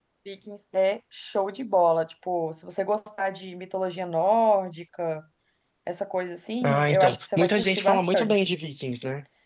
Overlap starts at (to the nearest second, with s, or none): 7 s